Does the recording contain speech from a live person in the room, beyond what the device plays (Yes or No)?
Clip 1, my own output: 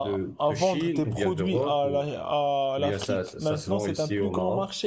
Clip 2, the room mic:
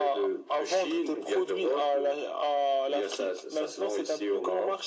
No